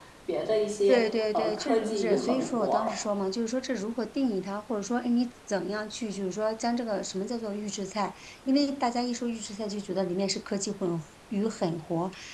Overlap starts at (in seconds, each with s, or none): 0.9 s